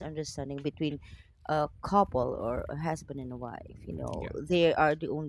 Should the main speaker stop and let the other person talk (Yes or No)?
No